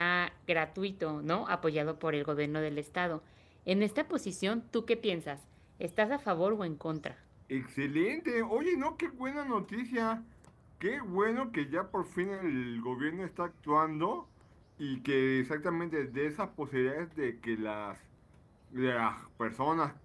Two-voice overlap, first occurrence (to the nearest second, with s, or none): none